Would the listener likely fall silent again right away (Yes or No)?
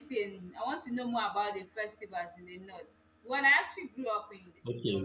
No